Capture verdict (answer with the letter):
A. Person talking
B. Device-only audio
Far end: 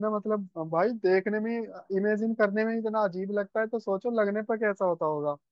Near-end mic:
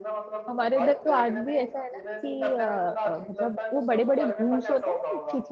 A